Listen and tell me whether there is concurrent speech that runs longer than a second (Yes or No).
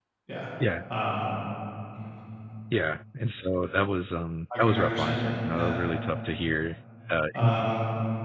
Yes